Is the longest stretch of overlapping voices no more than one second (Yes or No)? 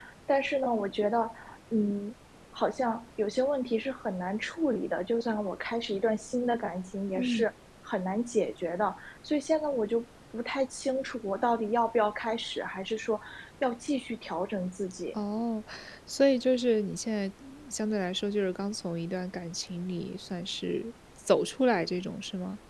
Yes